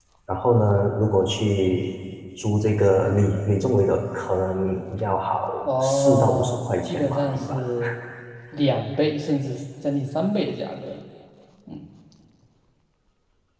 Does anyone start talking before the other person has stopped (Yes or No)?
Yes